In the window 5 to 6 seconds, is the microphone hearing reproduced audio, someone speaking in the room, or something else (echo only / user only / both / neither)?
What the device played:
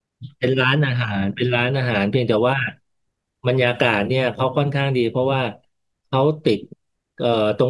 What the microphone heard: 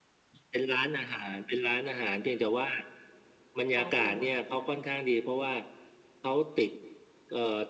echo only